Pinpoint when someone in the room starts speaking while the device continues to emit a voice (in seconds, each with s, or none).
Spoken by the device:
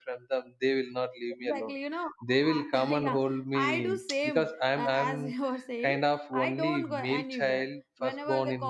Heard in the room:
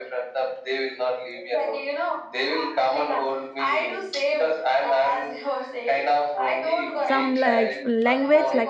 7.0 s